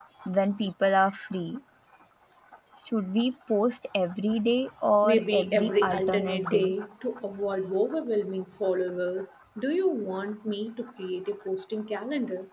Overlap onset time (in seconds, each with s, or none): 5.0 s